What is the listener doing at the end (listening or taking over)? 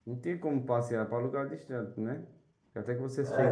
taking over